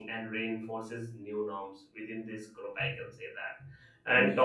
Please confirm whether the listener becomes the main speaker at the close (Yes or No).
No